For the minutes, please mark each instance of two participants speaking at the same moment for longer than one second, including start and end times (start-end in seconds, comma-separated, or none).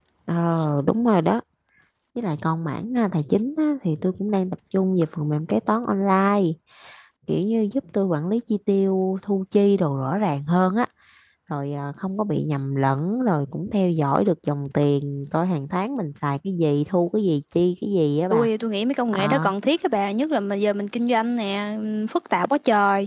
none